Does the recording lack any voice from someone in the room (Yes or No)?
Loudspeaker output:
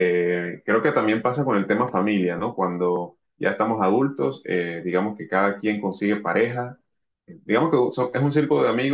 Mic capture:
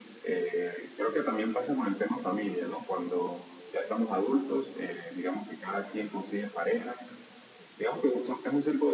Yes